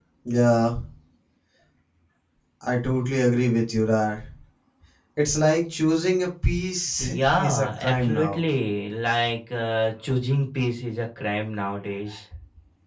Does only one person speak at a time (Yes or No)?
No